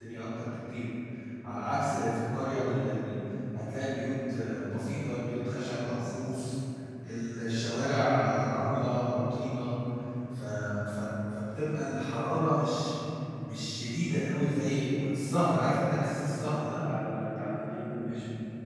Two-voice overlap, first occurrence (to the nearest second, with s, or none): 15 s